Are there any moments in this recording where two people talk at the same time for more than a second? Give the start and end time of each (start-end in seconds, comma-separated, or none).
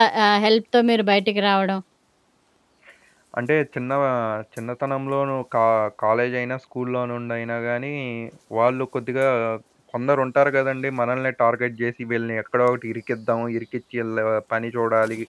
none